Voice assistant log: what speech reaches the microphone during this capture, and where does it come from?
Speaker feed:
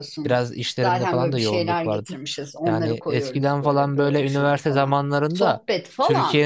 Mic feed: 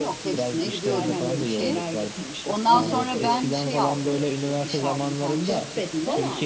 both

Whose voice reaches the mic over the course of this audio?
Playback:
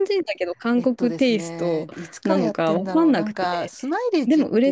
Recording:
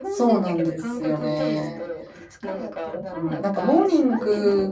both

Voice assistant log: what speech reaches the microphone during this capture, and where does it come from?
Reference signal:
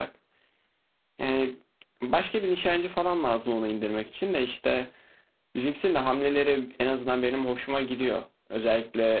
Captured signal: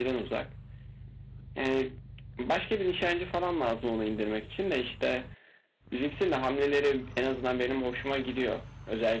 echo only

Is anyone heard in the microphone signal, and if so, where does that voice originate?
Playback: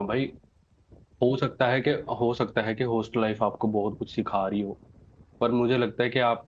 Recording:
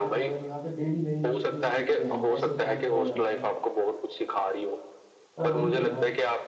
both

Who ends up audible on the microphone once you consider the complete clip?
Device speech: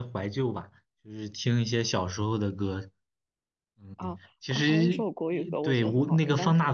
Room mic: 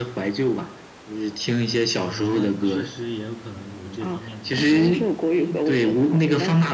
both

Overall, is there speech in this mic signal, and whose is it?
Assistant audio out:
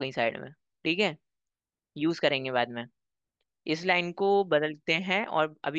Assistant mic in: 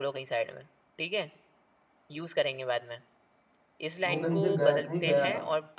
both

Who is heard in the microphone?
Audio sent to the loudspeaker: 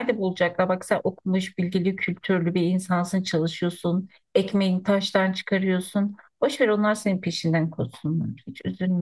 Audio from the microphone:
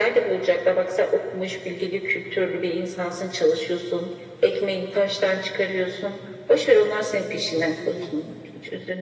both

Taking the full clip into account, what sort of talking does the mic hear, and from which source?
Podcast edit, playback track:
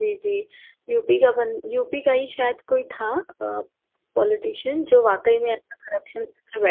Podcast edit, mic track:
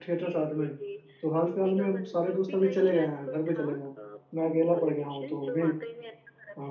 both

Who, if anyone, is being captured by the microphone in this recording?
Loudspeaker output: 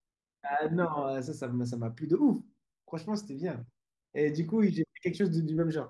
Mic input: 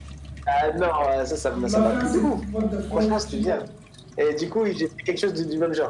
both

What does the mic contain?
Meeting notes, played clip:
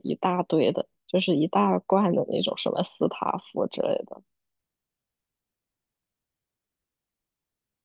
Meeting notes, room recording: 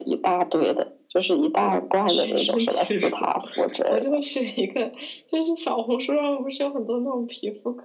both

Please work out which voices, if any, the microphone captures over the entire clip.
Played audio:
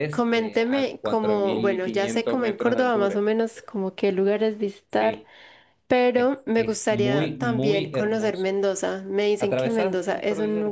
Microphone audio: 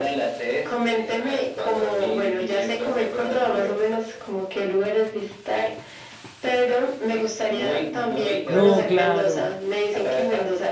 both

